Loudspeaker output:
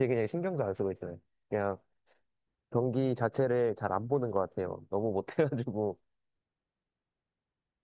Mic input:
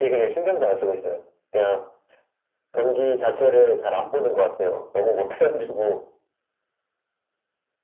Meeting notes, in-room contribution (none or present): none